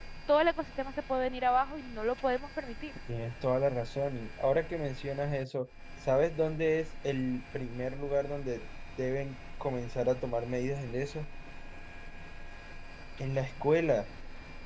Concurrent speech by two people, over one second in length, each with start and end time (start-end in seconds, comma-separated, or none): none